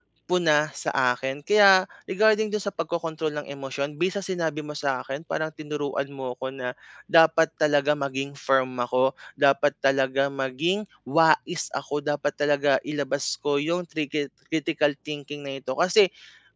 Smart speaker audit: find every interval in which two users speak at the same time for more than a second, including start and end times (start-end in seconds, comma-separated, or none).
none